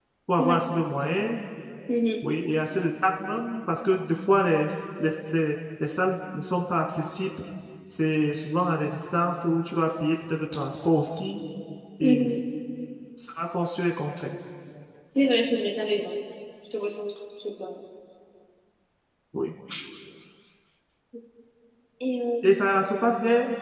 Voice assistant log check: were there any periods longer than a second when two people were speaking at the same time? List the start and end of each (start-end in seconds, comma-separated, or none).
none